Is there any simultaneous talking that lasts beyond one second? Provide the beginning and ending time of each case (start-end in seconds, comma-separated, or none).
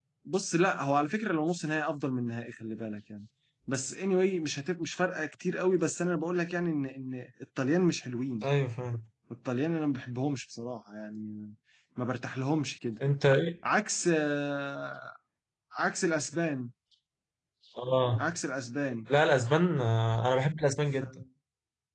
none